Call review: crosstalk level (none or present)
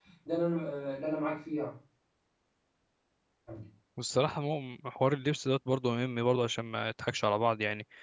none